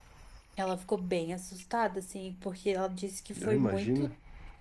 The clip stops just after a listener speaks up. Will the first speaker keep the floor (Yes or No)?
Yes